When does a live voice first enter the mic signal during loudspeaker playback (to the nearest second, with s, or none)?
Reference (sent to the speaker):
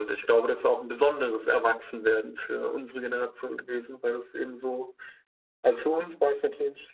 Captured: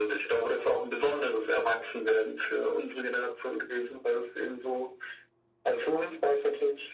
none